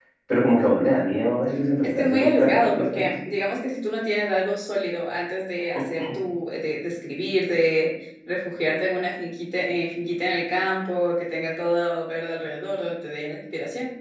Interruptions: present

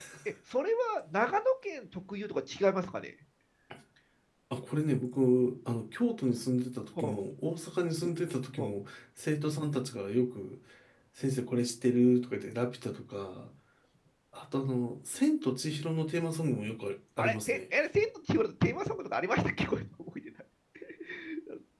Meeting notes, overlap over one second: none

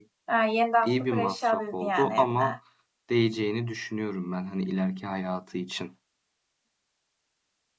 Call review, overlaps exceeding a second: present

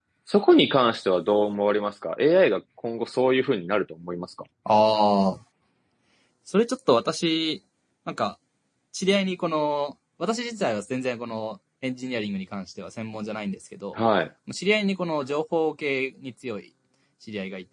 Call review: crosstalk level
none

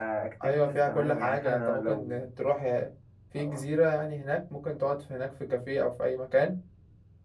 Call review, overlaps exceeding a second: present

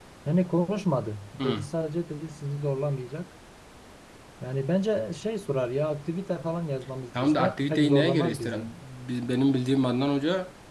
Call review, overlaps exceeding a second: present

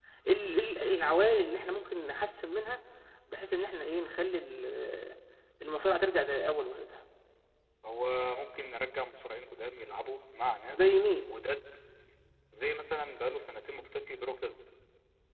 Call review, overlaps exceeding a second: none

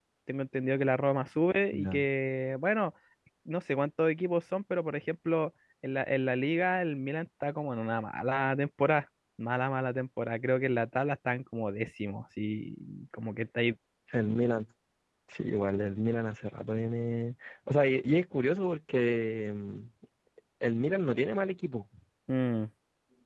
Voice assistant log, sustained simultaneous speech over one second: none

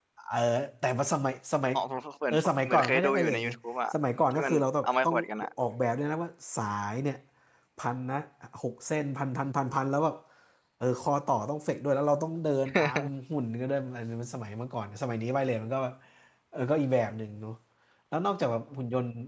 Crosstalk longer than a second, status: present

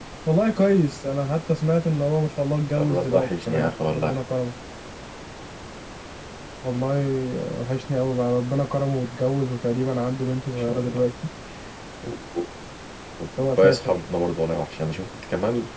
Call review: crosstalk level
present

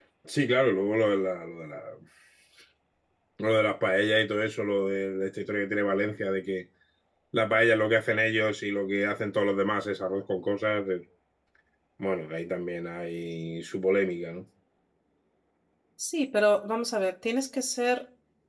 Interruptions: none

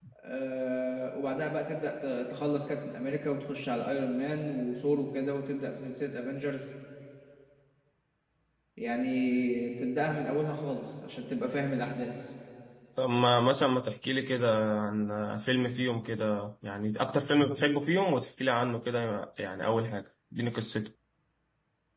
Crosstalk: none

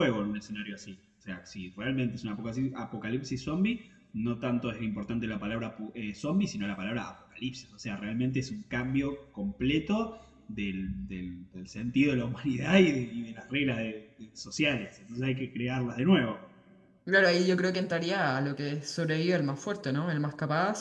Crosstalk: none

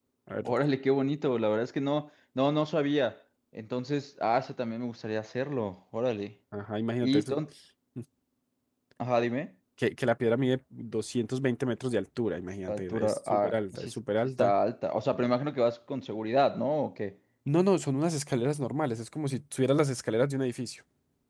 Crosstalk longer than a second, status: present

